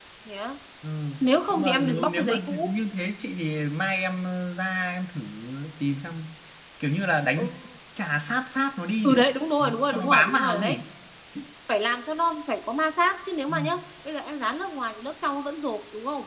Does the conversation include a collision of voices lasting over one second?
Yes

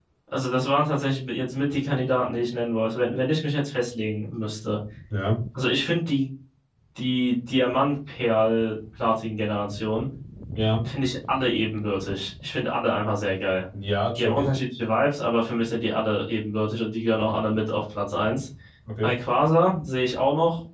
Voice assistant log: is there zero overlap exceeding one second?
Yes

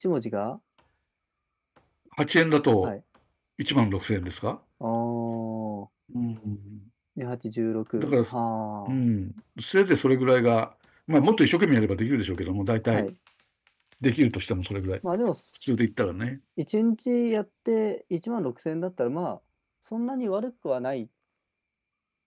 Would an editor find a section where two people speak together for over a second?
No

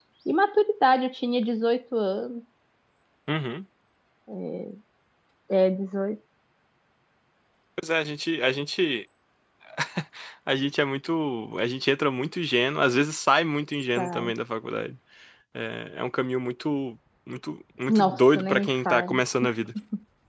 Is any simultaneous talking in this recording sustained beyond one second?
Yes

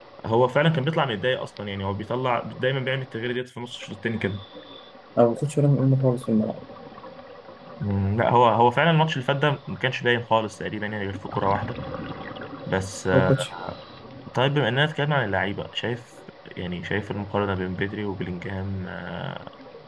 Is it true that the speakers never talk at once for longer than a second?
Yes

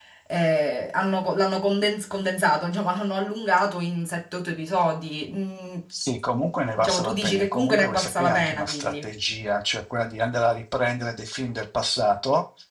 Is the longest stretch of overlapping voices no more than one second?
No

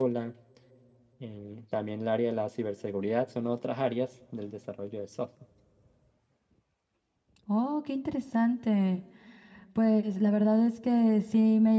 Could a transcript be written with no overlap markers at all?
Yes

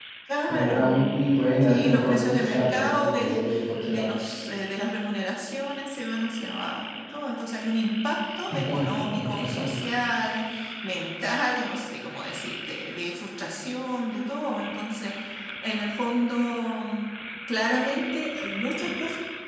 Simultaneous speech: Yes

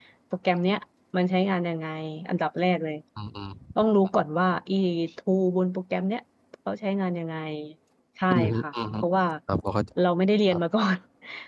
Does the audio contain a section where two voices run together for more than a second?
No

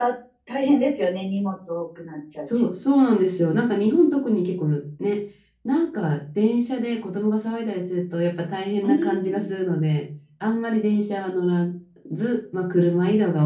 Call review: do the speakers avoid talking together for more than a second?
Yes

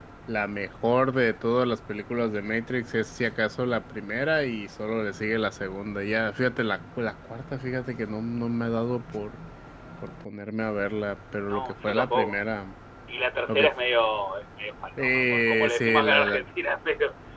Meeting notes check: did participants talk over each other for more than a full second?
Yes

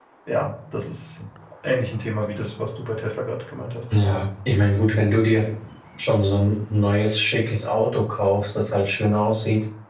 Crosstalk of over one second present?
No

